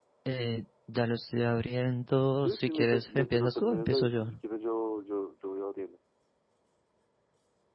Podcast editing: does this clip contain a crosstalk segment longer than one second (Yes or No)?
Yes